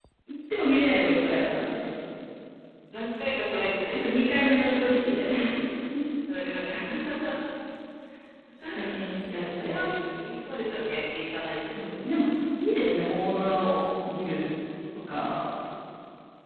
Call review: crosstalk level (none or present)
present